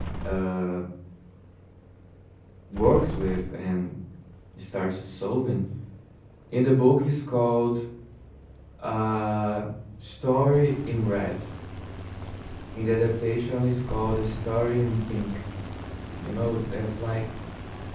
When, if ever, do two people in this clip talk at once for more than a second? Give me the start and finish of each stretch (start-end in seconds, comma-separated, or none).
none